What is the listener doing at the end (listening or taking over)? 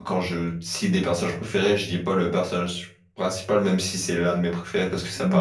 taking over